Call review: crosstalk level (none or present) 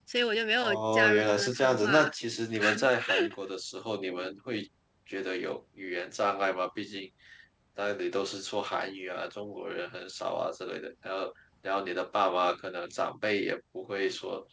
present